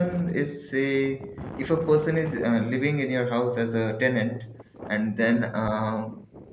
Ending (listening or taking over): listening